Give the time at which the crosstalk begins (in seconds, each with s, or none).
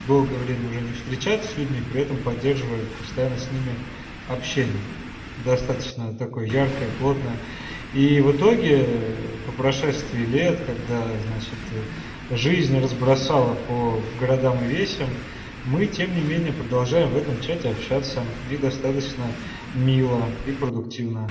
none